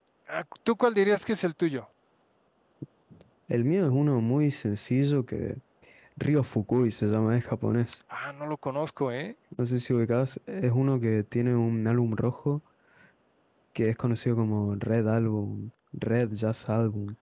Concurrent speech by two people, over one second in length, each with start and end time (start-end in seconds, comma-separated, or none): none